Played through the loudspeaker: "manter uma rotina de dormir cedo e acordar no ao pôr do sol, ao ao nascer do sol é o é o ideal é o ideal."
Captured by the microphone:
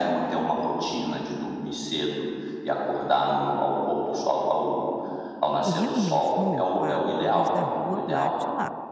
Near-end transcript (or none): e realmente no meu quarto a luz da rua bate lá.